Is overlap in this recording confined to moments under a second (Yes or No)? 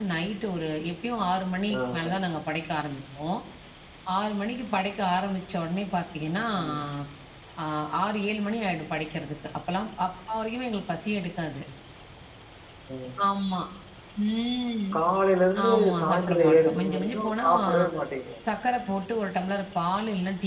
No